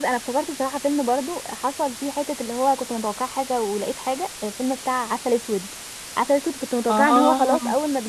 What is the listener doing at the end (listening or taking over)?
listening